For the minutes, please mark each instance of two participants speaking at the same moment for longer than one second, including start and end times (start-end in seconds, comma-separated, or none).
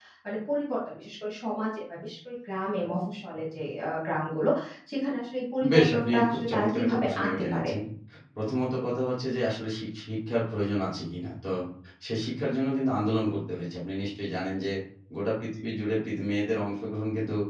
5.7-7.7